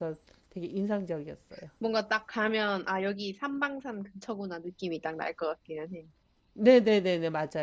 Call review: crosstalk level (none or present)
none